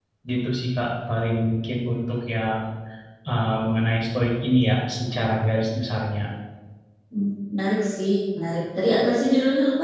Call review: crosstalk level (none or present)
none